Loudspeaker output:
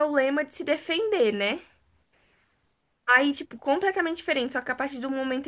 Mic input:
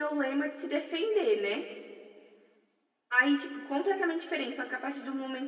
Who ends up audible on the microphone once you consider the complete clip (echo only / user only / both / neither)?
echo only